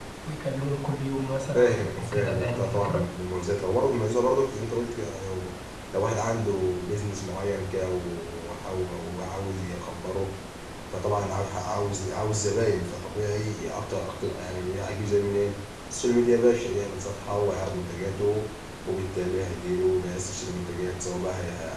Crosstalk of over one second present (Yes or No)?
Yes